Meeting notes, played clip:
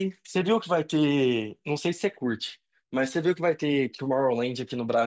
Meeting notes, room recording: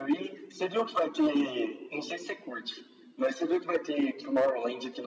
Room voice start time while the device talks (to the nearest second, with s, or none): none